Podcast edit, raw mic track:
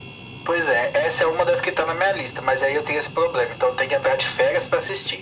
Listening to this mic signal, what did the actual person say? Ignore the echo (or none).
none